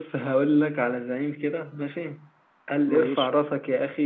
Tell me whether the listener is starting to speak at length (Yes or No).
No